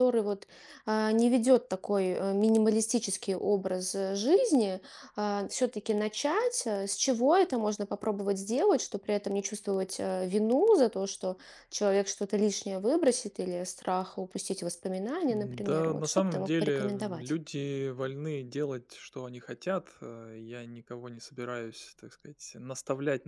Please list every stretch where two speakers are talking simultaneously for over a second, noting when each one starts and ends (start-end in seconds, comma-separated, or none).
15.3-17.3